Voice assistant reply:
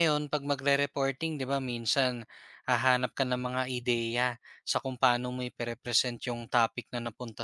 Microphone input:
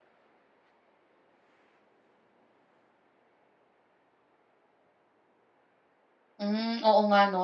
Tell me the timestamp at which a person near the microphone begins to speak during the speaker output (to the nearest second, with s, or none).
6 s